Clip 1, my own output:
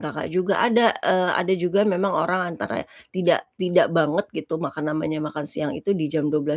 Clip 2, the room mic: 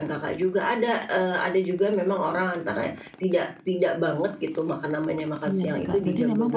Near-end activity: present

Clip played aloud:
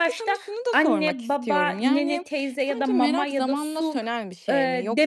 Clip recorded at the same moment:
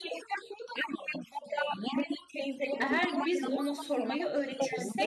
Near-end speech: present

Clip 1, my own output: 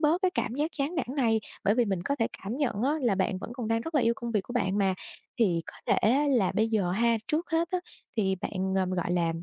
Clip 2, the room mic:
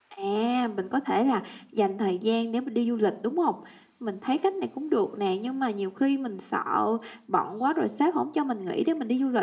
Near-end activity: present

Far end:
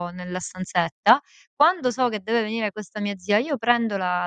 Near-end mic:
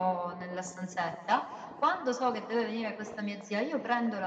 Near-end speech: none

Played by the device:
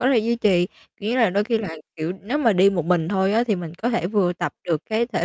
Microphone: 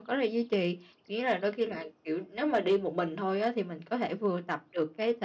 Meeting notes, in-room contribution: none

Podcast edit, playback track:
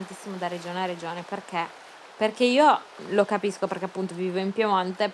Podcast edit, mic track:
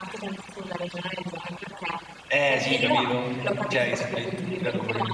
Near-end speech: present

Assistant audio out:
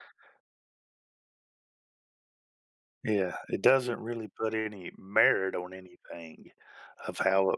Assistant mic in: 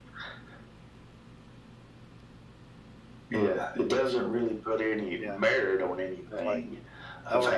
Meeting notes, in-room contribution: present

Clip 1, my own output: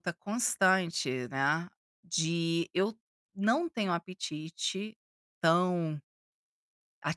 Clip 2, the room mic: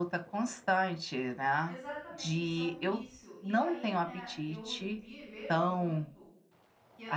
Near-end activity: present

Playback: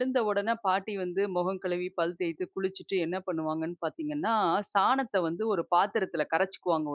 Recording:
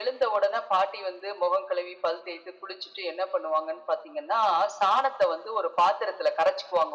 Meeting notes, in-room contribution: none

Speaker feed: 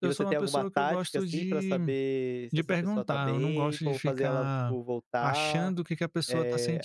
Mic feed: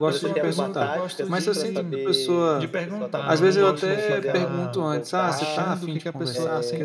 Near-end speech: present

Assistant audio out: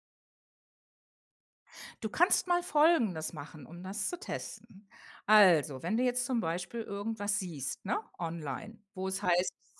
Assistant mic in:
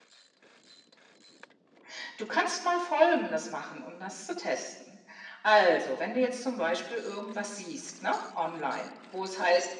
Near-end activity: none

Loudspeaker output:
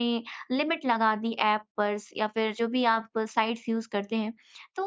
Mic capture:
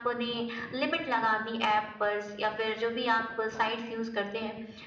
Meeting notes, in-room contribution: none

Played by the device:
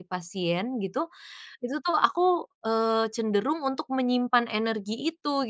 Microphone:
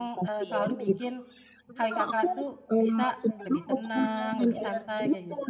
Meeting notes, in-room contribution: present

